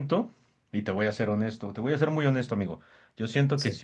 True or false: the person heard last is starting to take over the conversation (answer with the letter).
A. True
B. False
B